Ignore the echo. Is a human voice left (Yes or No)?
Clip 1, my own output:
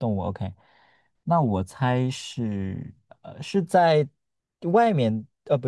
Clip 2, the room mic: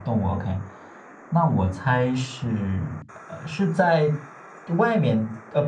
No